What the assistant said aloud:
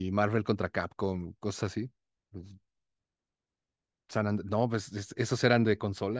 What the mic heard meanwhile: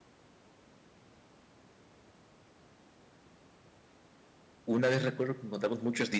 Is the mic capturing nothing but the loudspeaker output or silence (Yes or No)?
No